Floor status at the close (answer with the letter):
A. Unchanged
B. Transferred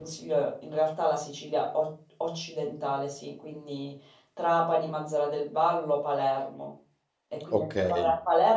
A